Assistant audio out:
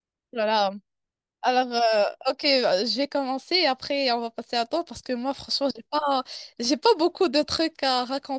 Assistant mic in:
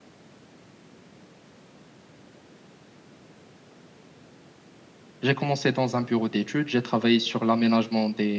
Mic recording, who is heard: user only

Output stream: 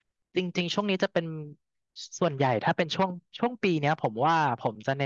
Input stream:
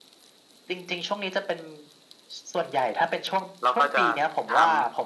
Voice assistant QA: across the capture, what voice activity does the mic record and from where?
both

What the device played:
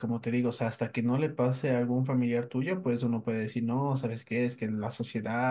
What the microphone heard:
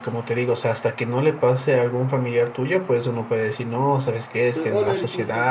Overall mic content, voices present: both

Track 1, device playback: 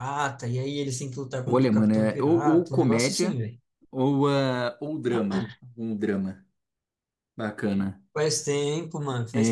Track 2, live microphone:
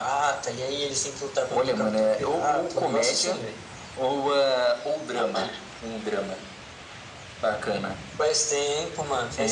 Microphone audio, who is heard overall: echo only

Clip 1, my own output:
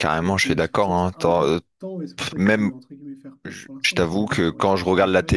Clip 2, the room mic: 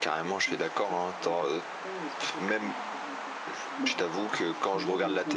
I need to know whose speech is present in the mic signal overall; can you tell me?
both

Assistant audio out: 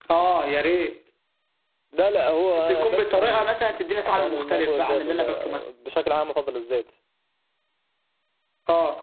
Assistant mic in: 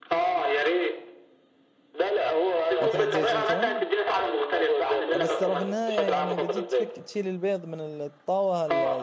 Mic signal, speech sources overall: both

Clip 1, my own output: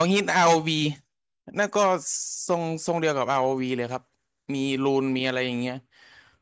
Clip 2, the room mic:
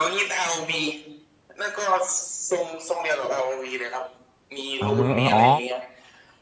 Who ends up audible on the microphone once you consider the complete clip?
both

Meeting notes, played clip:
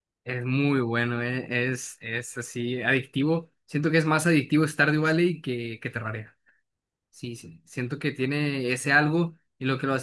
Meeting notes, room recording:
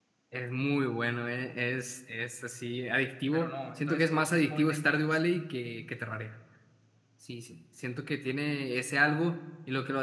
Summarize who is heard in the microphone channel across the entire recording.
both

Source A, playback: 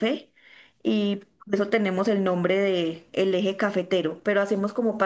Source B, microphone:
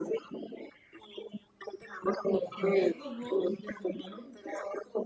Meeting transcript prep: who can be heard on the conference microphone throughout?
both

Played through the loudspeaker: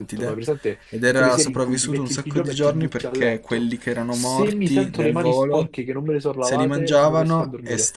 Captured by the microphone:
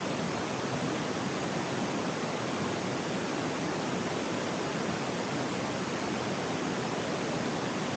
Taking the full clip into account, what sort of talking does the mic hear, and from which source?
neither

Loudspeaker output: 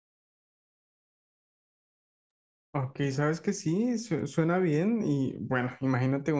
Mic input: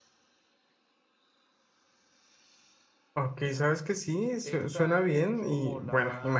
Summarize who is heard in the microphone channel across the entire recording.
both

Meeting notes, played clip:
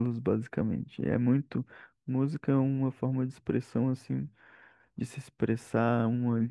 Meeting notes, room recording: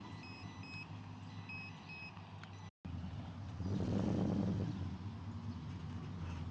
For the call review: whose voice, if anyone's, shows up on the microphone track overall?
neither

